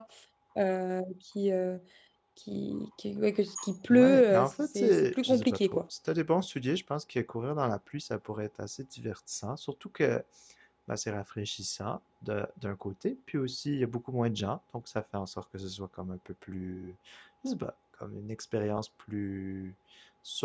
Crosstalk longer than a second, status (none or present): present